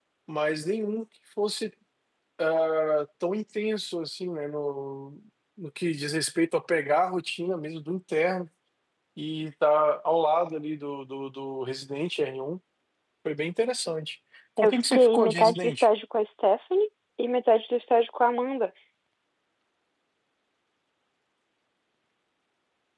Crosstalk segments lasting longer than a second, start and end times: 14.6-15.9

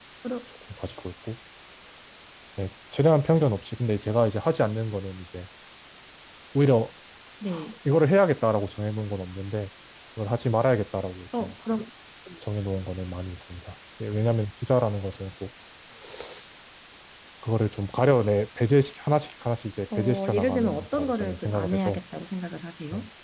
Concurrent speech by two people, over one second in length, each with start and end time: 20.0-22.0

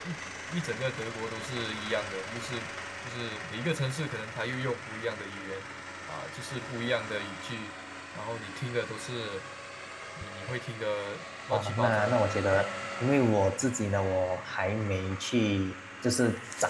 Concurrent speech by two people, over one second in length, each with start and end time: 11.5-12.8

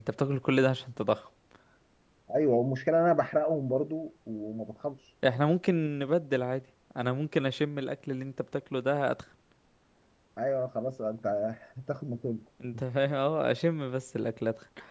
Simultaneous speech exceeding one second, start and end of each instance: none

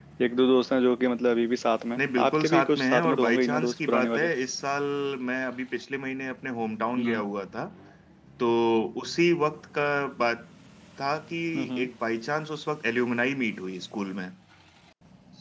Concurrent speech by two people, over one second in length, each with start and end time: 2.0-4.3

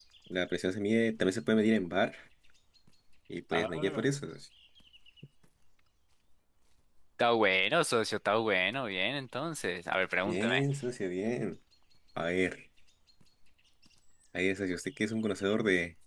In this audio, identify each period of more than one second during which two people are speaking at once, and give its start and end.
none

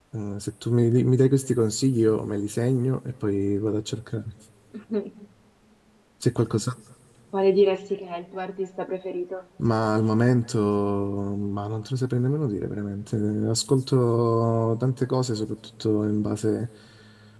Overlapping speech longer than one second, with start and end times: none

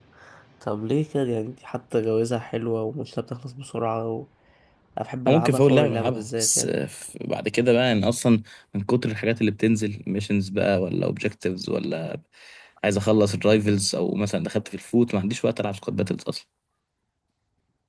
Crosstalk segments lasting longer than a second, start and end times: 5.3-6.7

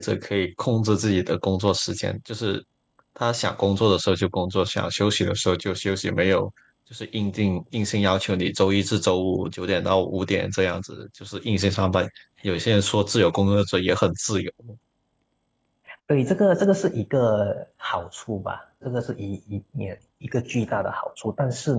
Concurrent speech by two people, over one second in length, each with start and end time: none

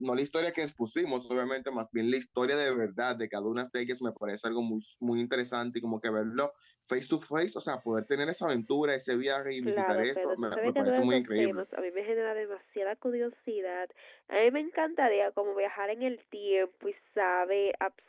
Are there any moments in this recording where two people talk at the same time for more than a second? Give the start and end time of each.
9.7-11.6

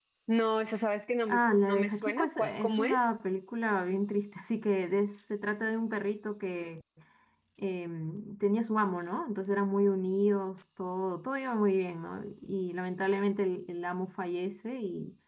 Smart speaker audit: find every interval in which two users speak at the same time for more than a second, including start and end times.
1.3-3.1

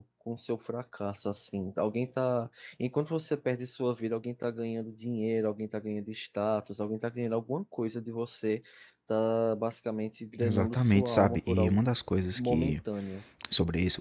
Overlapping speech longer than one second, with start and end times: 10.4-11.8

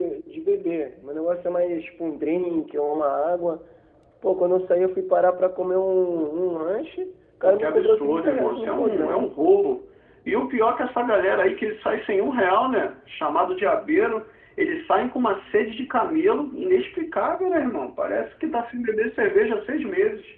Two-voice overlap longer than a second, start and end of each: 7.4-9.3

